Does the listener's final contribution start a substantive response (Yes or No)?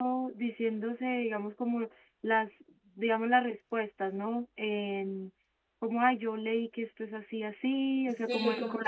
Yes